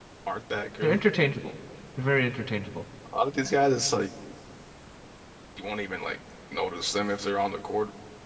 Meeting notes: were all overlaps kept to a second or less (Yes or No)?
Yes